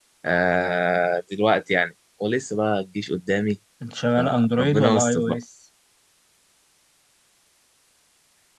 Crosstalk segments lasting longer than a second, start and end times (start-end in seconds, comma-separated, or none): 4.2-5.4